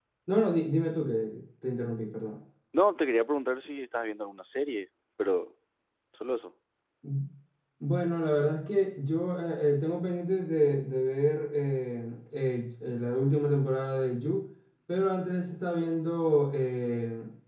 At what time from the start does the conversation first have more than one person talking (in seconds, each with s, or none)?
none